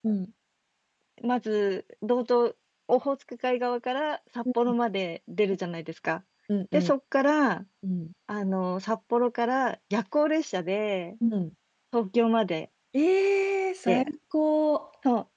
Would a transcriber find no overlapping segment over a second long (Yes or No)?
Yes